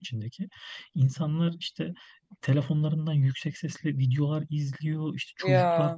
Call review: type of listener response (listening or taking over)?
listening